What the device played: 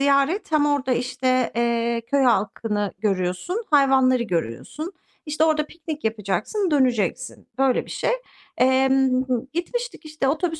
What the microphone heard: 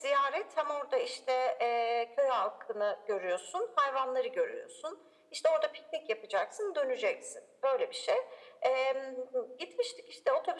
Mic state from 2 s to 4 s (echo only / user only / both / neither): echo only